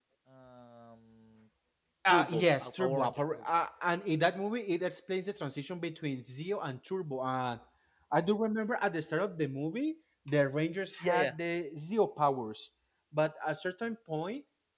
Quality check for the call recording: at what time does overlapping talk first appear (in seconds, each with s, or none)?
2.1 s